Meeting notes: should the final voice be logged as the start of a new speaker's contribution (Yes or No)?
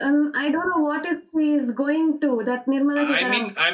Yes